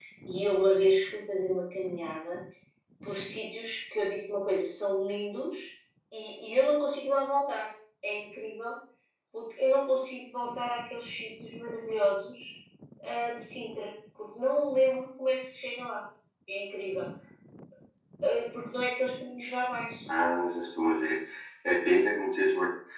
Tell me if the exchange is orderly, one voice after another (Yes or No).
Yes